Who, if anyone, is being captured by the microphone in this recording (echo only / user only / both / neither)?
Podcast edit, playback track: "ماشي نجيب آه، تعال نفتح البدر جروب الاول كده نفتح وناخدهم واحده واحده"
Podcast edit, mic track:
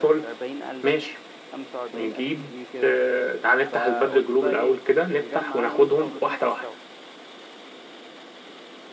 both